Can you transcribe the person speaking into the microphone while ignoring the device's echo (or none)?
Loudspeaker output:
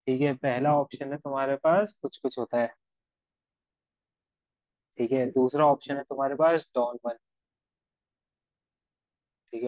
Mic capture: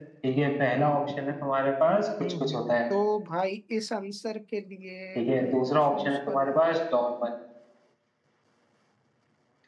हम्म हम्म, तो भाई इस आंसर के लिए मैं चूज करूंगा